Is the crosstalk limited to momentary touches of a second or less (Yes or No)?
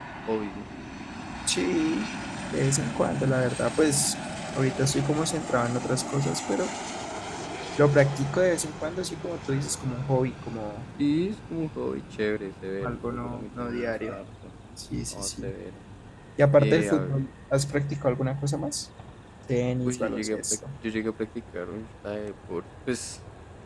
No